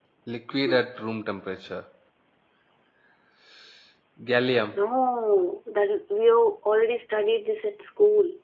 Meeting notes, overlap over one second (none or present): none